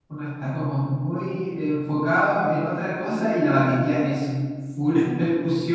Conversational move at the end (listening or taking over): listening